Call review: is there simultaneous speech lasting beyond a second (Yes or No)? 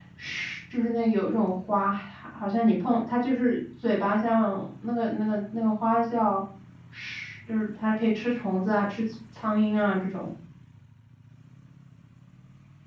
No